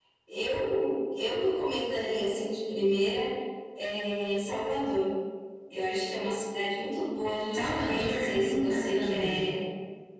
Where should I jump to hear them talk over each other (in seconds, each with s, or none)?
7.5 s